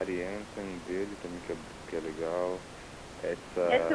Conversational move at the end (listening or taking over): taking over